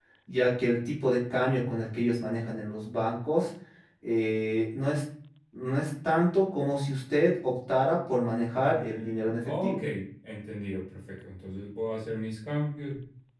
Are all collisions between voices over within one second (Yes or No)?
No